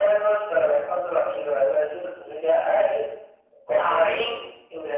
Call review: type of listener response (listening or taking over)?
listening